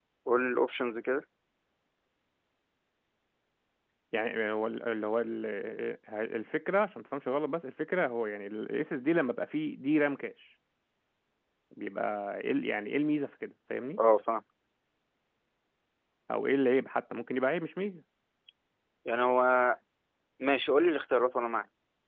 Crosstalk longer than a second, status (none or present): none